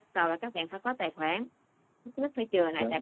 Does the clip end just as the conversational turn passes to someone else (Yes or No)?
No